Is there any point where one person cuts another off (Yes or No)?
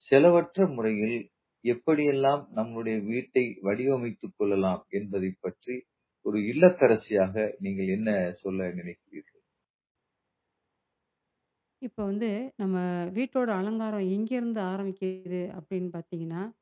No